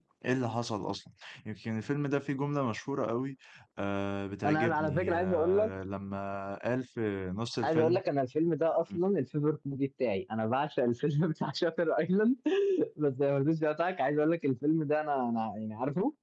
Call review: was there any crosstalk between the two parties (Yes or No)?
Yes